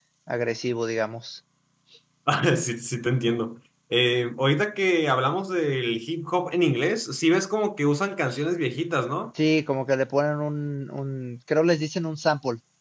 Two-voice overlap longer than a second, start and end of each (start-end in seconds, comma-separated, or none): none